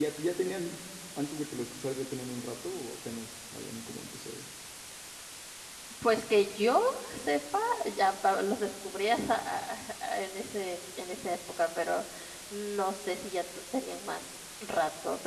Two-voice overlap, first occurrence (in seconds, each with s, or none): none